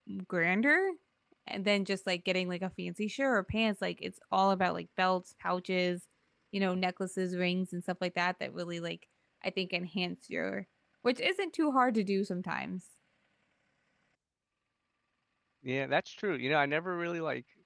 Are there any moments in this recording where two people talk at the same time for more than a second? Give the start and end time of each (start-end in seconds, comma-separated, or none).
none